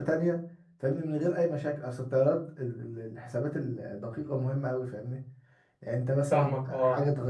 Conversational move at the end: taking over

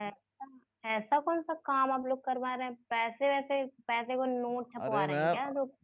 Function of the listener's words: taking over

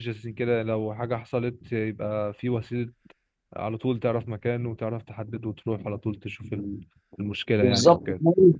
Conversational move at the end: taking over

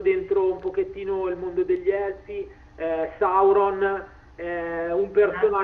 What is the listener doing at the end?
listening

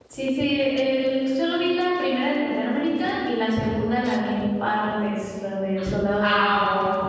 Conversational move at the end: taking over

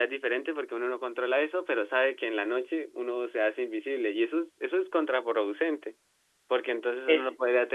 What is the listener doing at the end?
listening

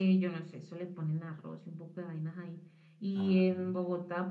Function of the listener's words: listening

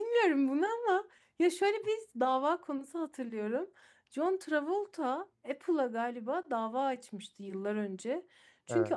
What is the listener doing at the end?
listening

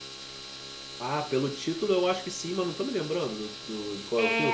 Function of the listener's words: taking over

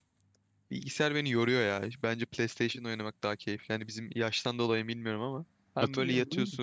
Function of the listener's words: listening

